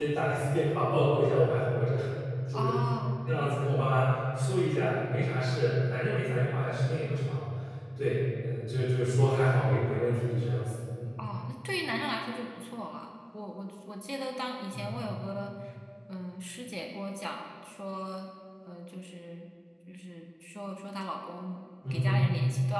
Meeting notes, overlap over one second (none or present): none